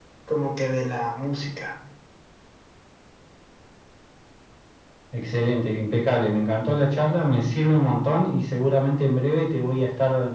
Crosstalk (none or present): none